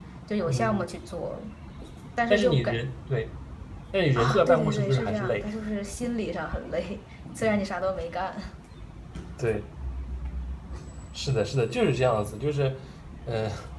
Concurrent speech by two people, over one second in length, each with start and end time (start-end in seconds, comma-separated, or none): 4.2-5.5